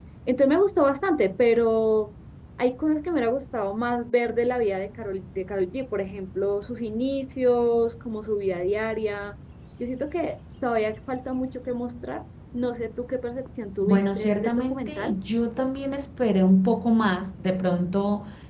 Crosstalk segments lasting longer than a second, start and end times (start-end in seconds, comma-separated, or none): 13.8-15.1